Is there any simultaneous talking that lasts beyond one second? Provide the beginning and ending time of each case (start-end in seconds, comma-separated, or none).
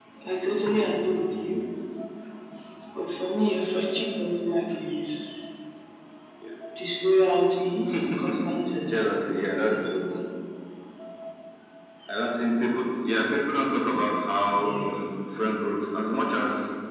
none